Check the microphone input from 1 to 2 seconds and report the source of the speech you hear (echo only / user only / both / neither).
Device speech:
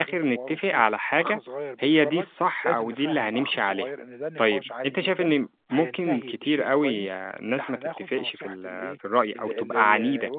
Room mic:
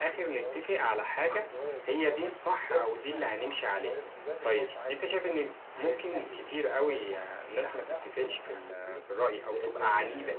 echo only